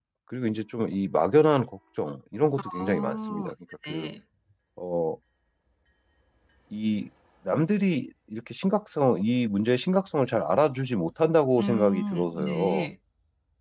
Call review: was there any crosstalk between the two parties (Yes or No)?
Yes